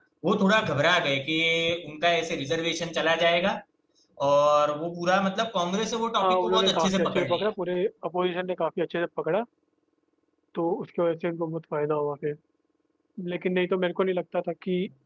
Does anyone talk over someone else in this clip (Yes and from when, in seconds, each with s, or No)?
Yes, from 6.2 s